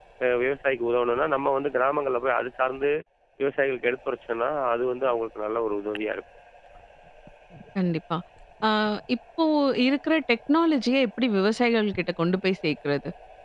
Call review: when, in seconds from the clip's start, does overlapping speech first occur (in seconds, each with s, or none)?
none